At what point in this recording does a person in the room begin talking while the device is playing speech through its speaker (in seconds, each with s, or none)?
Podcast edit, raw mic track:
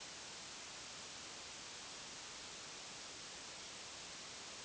none